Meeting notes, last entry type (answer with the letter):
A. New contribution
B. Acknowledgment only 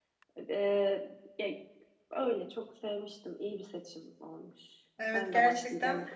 A